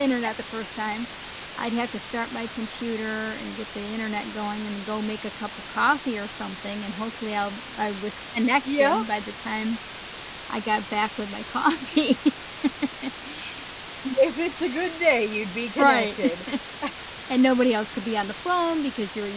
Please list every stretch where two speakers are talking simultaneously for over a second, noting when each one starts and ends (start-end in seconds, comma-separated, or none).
none